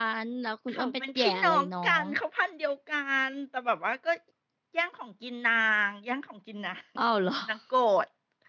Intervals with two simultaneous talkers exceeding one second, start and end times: 0.7-2.1

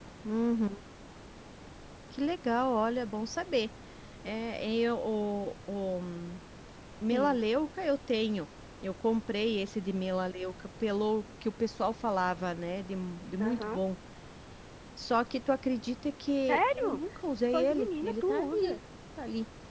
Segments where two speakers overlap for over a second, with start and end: 17.5-18.8

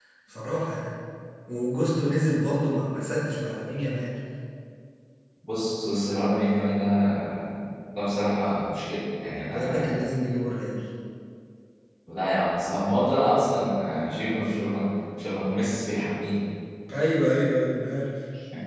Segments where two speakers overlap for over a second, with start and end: none

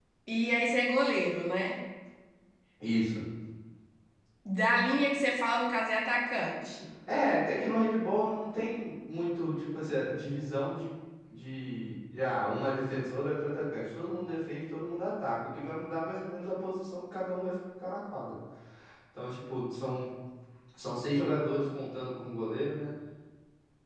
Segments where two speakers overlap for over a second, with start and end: none

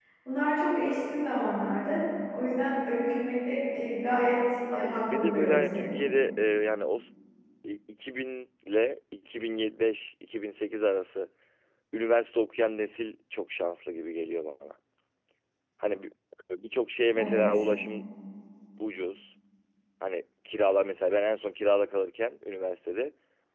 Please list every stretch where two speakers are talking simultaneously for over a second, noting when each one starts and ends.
4.7-5.9

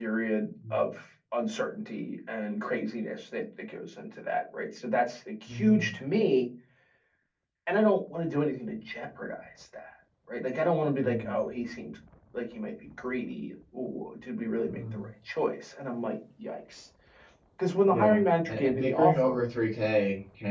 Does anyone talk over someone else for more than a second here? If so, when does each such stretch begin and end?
17.9-19.4

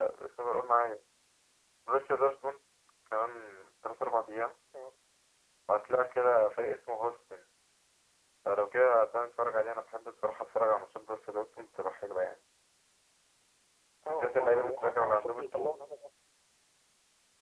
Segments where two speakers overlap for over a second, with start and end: 14.1-15.8

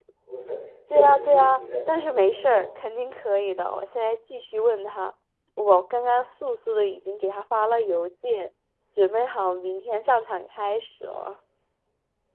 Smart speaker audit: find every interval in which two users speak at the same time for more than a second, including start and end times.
0.9-2.6

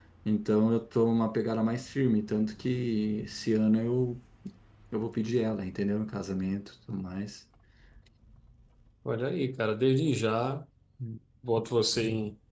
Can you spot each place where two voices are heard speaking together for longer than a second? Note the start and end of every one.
none

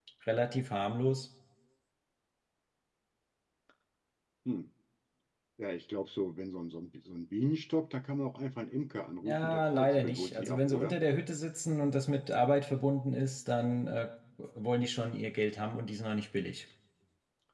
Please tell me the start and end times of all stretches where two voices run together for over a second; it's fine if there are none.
9.2-11.0

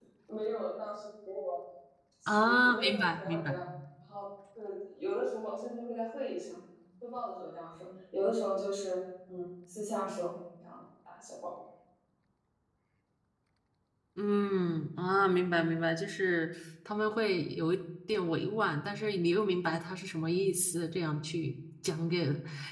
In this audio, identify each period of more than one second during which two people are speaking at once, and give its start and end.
2.3-3.6

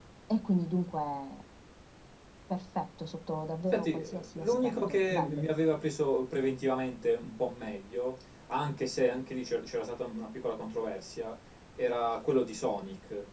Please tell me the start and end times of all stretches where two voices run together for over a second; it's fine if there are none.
3.7-5.5

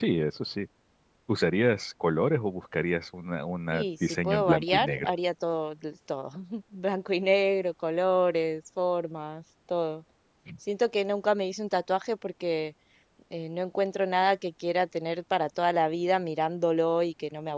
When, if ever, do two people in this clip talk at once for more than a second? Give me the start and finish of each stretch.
3.7-5.1

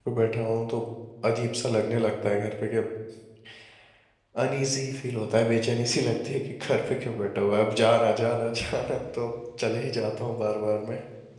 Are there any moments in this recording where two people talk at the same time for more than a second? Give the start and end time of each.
none

